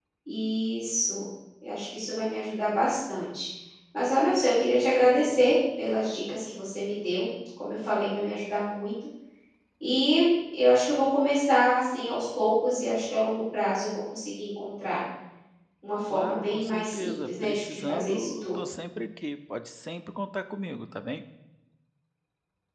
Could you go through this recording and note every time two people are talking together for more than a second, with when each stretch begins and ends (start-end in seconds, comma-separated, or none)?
16.1-18.6